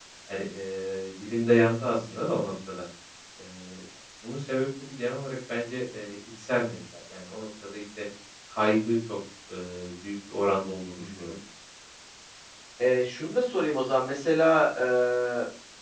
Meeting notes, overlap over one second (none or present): none